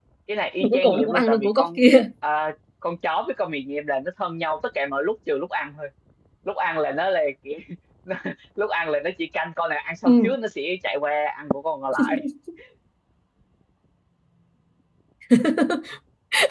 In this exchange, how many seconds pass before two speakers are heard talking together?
1 s

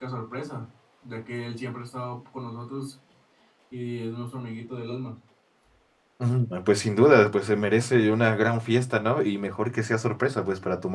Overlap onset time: none

